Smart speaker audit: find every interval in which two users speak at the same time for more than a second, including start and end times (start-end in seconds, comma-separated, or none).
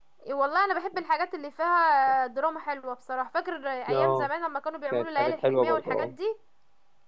4.9-6.1